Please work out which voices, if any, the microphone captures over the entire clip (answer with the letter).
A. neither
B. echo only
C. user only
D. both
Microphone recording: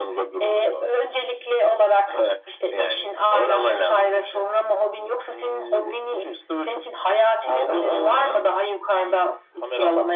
B